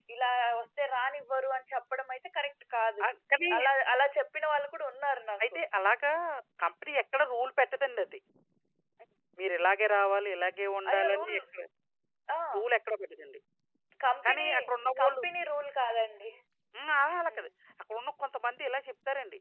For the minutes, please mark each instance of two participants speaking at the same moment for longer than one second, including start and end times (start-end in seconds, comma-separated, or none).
none